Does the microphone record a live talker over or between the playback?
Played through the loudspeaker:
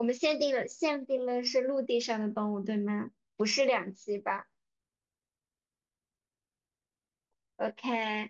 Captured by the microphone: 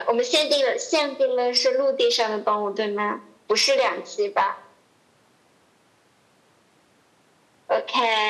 No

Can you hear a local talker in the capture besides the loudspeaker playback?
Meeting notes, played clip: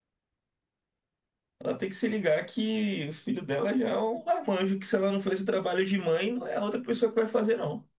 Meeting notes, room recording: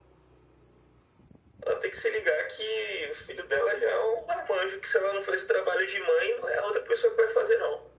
No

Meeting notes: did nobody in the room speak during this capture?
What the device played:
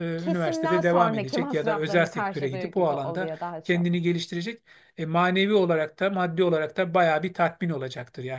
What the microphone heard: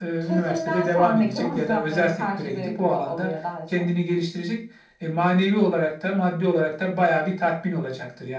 Yes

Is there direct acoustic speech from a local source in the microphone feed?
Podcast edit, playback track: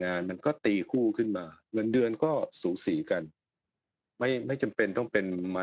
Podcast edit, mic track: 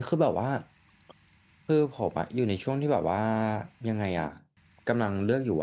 Yes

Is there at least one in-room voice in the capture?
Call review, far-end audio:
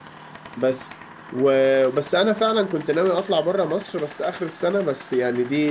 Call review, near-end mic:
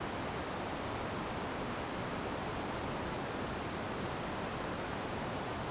No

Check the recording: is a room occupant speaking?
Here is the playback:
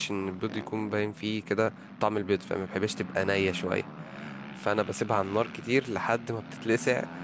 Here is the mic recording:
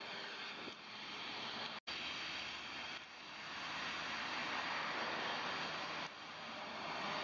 No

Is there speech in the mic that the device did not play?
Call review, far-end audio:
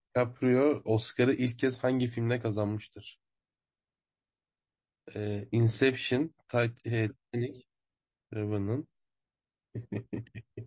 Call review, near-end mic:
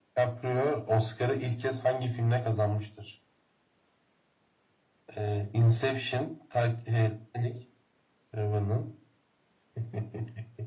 No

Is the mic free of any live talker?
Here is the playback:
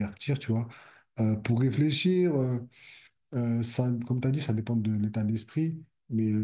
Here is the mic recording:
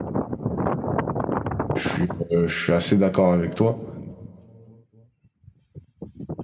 No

